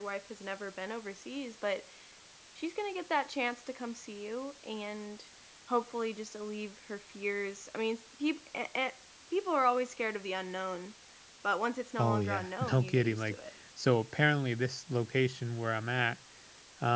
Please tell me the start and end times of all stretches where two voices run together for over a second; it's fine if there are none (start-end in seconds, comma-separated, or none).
12.0-13.4